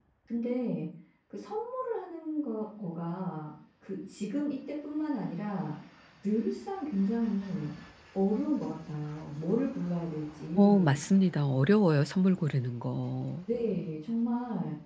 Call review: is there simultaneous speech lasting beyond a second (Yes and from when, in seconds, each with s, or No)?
No